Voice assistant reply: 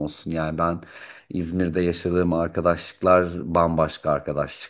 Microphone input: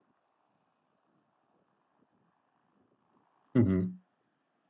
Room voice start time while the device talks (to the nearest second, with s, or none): 4 s